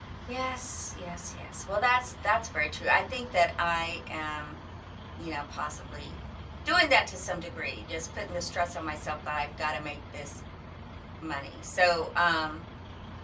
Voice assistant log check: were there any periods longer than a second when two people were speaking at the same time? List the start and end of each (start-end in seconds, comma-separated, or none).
none